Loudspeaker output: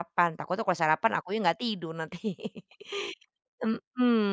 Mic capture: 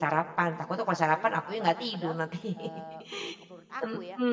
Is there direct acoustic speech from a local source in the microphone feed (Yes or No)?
Yes